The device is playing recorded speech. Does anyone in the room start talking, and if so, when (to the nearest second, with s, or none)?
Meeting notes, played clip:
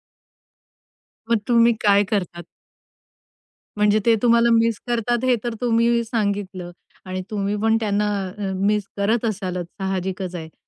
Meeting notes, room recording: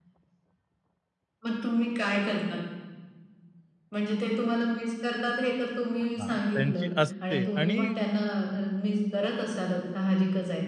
6 s